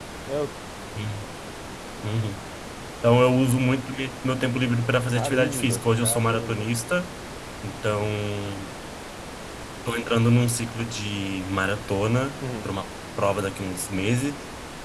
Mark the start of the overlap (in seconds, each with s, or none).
5.2 s